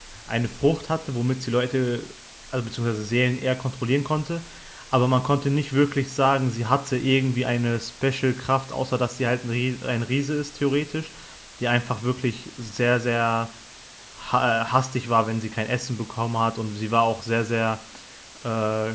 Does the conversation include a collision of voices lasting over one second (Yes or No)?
No